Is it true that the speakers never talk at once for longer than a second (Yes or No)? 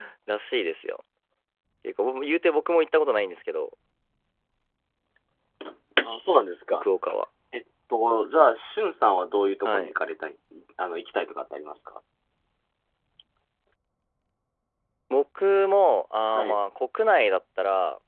Yes